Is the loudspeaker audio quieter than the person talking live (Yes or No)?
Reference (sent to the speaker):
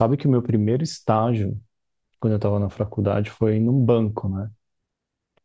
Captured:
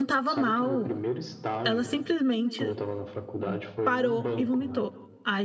Yes